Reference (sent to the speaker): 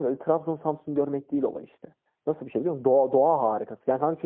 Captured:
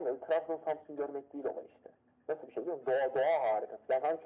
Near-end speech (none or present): none